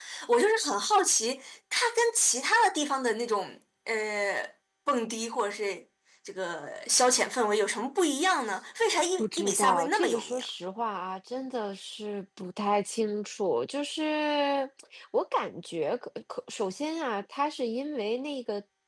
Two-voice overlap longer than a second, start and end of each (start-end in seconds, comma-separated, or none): 9.2-10.4